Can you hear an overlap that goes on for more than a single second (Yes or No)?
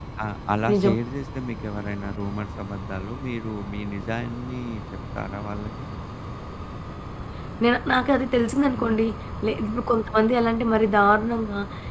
No